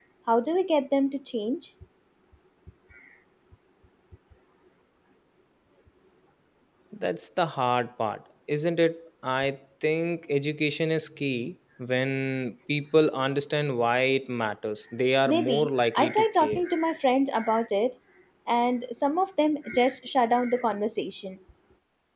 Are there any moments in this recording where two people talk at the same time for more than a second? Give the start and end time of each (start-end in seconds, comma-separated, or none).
15.3-16.6